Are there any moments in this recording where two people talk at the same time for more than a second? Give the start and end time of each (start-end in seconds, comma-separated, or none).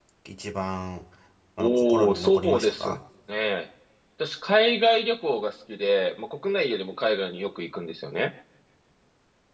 1.6-3.0